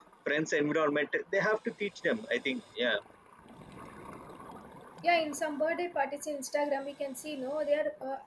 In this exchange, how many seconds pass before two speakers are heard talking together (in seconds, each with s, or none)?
none